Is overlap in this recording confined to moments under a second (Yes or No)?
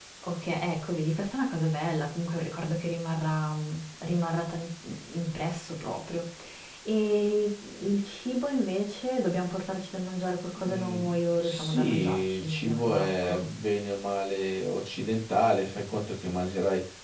No